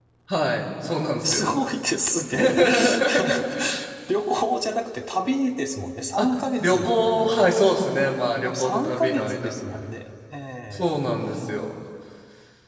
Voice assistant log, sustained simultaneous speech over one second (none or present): present